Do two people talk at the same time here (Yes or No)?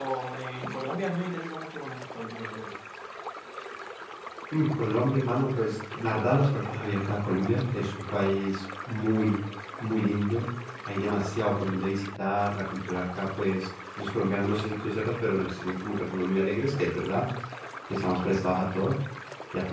No